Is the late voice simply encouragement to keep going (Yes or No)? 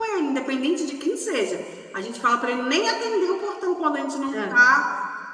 Yes